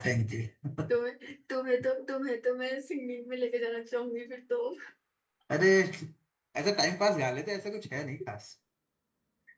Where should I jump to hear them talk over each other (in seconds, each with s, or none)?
none